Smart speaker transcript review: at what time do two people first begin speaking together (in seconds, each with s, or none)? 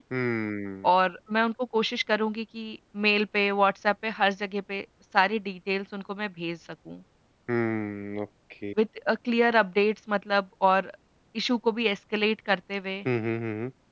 none